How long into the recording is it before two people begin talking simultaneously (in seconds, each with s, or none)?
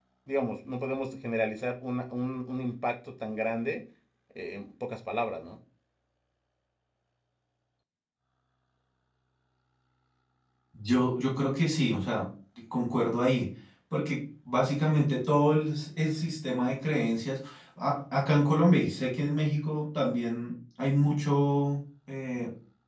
none